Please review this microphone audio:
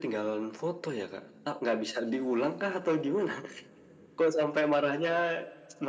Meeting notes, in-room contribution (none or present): none